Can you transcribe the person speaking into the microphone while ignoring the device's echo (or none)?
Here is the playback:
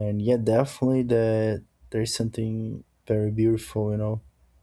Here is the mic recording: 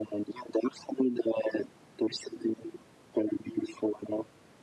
none